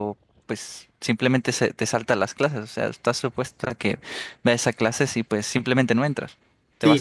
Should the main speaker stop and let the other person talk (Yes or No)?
Yes